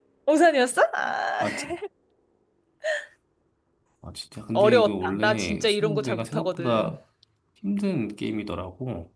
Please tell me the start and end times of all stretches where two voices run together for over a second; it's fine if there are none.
4.5-7.0

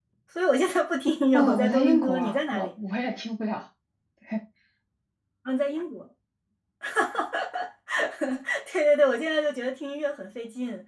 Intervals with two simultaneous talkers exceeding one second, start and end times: 1.3-2.7

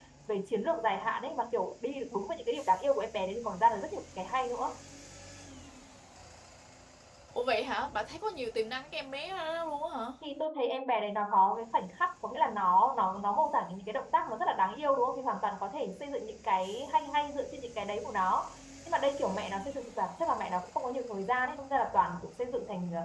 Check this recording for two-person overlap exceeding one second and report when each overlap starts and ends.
none

